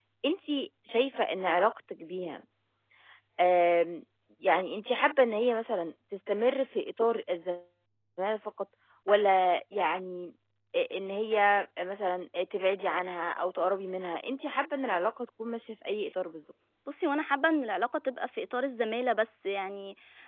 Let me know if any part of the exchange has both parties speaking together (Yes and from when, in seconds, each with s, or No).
No